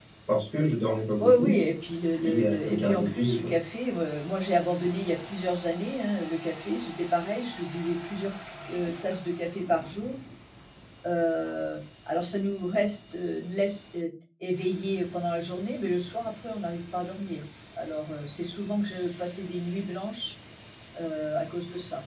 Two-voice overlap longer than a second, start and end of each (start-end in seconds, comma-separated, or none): 2.2-3.5